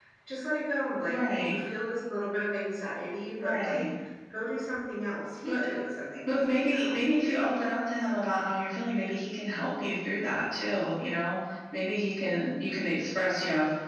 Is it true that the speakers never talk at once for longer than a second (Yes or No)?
No